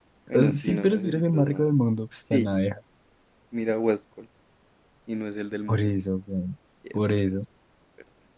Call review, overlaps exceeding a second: present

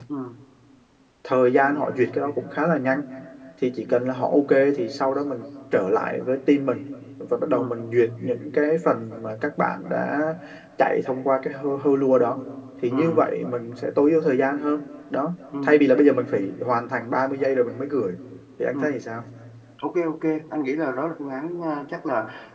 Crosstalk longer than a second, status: none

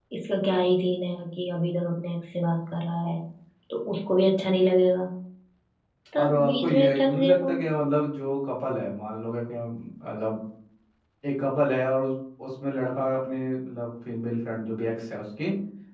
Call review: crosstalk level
present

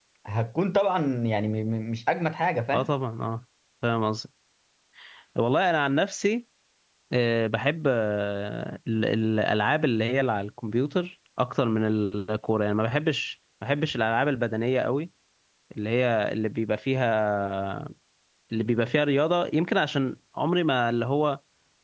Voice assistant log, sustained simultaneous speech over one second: none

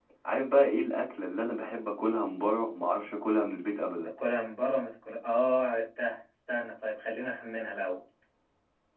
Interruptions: none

